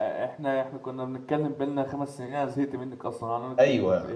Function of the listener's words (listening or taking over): taking over